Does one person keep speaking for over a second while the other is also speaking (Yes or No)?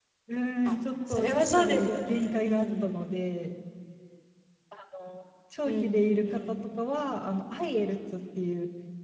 Yes